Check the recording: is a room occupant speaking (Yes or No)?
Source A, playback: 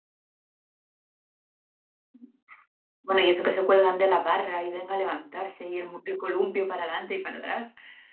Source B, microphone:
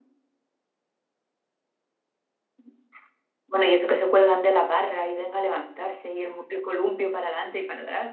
No